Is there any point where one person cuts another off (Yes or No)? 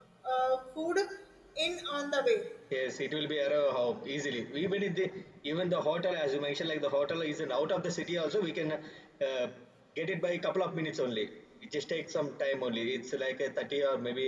No